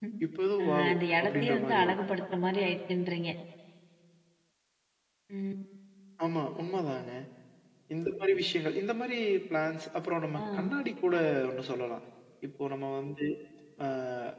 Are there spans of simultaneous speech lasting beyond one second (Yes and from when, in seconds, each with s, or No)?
Yes, from 0.6 s